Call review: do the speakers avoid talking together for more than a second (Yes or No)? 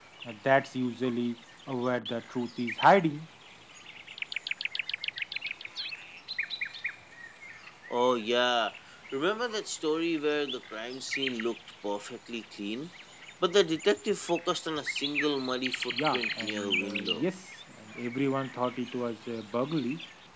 No